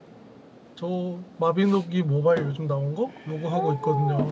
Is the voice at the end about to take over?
Yes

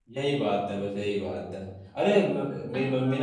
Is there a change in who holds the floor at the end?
No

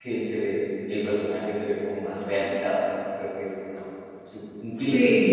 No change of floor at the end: No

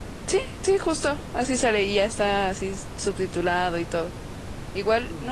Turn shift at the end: No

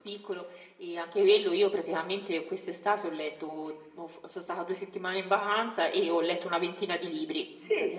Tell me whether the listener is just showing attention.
No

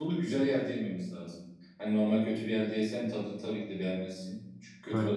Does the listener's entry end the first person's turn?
No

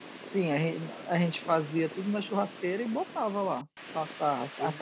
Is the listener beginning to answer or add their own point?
Yes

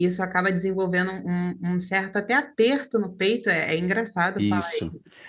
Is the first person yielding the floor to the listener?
Yes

